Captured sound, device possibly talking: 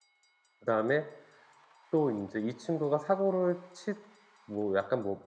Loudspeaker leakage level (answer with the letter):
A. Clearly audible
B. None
B